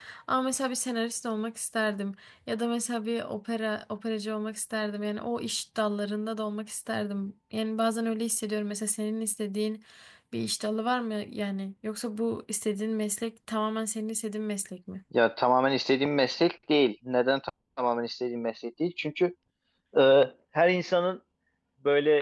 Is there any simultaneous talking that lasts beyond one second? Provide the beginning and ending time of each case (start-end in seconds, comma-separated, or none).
none